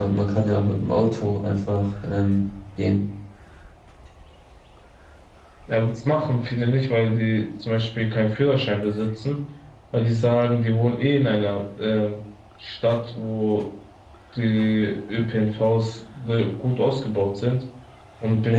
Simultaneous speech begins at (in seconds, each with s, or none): none